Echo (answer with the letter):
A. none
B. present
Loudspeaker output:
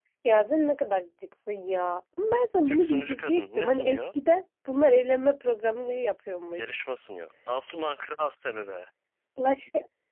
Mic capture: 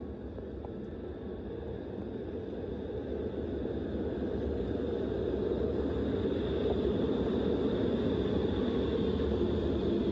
A